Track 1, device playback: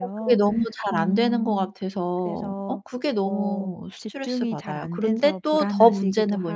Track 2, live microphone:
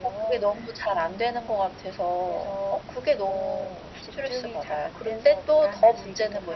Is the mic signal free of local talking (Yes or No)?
Yes